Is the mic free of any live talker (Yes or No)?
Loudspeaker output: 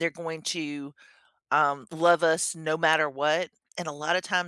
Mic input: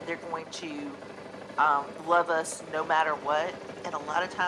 Yes